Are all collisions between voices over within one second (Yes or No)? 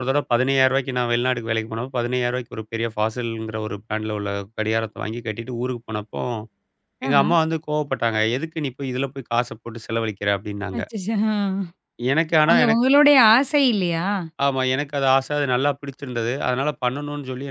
Yes